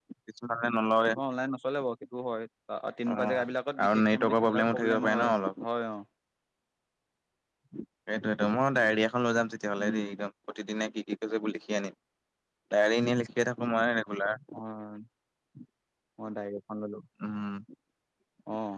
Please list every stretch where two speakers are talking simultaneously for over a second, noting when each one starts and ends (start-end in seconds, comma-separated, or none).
3.9-5.6